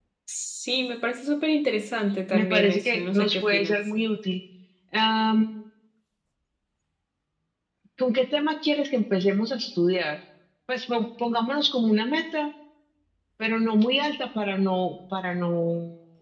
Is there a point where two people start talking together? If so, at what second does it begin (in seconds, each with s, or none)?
2.3 s